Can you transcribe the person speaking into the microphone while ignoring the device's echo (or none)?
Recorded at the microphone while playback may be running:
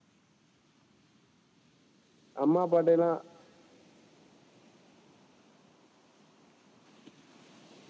அம்மா அப்பாட்டைலா